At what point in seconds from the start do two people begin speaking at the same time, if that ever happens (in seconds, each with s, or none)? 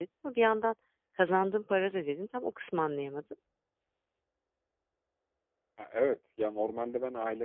none